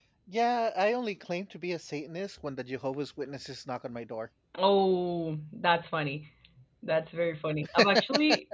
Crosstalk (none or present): none